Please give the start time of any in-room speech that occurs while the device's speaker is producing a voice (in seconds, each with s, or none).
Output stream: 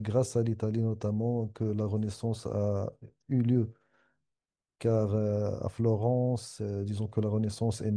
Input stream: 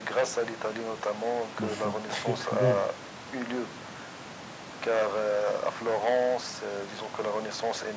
1.6 s